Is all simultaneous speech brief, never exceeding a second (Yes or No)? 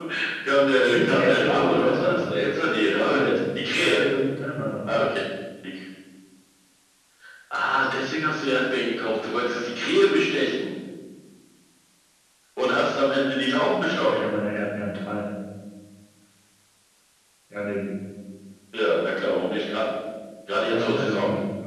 No